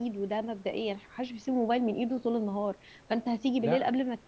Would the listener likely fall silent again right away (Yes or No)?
Yes